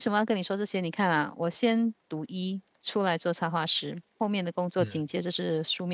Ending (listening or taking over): listening